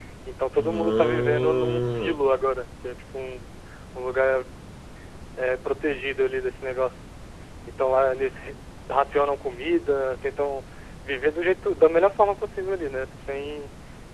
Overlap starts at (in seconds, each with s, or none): 0.6 s